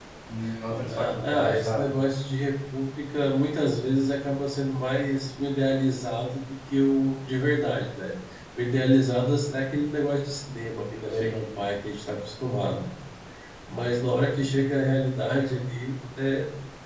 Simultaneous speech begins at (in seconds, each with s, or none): 0.7 s